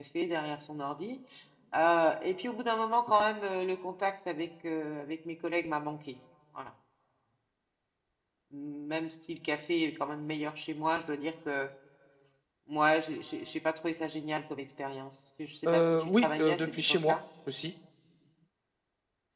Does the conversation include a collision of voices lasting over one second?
Yes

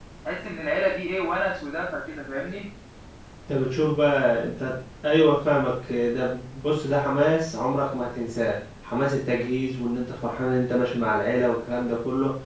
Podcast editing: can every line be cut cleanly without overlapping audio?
Yes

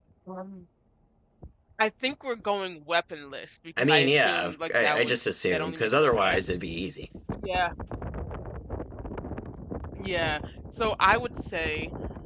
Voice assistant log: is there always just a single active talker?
No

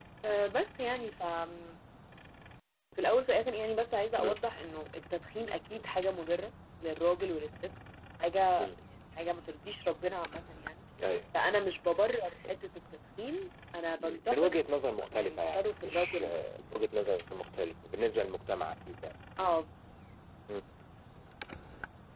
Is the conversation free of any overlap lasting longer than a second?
No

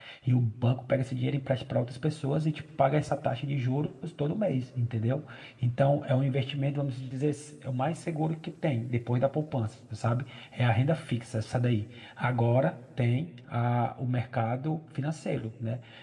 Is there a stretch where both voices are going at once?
No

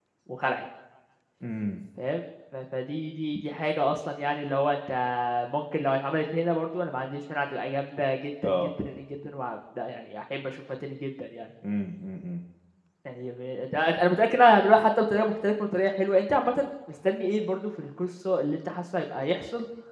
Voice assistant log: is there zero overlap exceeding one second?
Yes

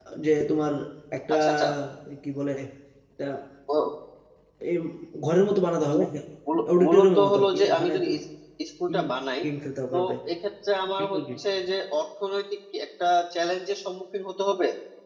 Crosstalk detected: Yes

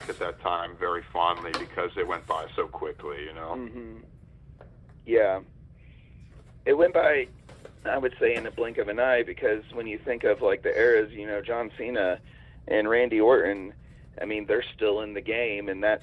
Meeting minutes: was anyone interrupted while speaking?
No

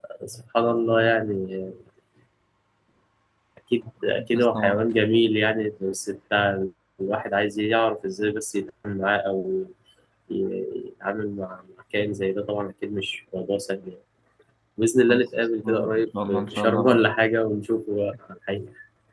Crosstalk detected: Yes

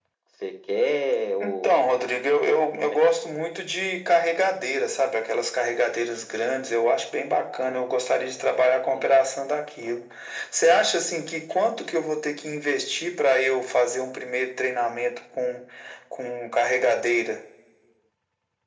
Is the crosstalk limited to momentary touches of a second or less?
Yes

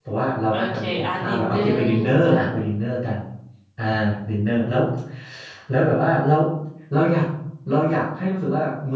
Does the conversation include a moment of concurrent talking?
Yes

